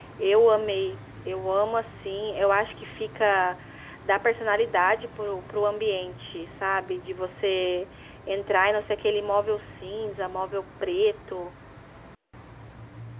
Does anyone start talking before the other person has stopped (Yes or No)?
No